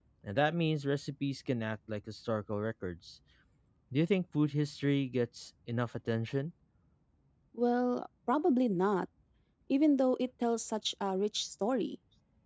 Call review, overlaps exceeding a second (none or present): none